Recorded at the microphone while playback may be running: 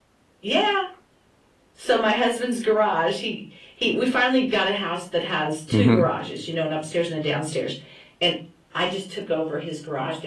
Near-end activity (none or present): present